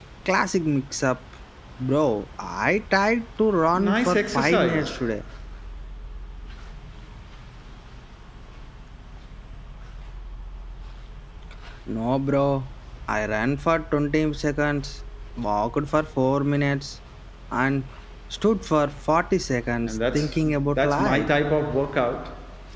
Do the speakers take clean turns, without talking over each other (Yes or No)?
No